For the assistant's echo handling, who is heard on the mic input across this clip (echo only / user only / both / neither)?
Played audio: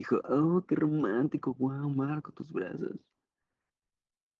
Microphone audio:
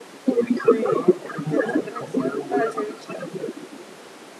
both